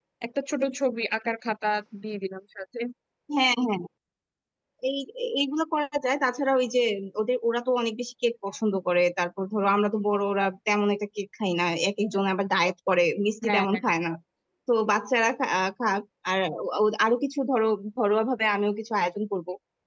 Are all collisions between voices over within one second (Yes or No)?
Yes